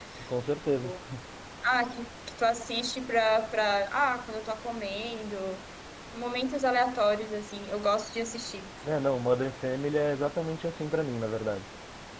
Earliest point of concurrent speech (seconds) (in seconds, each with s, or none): none